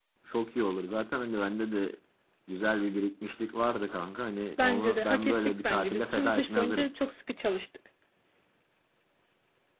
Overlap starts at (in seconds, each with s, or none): 4.6 s